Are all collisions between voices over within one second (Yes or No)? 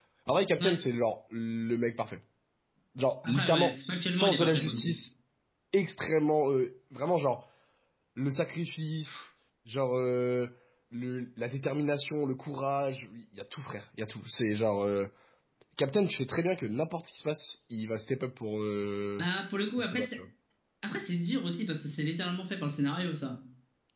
No